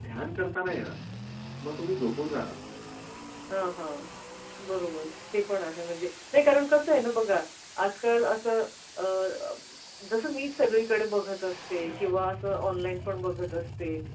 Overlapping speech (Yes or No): No